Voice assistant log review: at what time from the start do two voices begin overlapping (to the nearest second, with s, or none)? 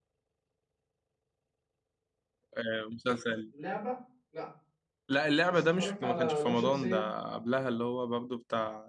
5 s